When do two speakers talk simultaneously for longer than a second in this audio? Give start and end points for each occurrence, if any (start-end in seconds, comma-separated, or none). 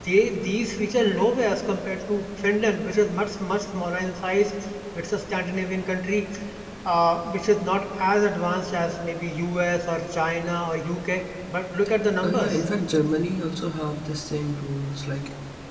none